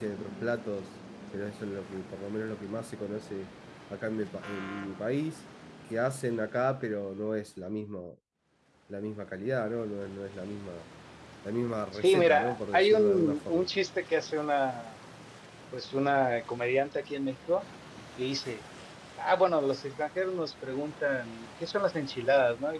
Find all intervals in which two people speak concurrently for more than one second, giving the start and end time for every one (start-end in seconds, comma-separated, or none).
12.0-13.7